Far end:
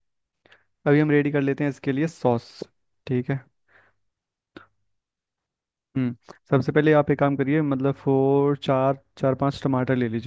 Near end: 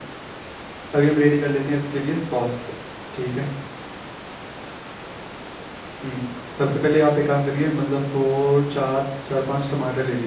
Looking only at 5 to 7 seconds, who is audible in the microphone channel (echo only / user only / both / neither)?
echo only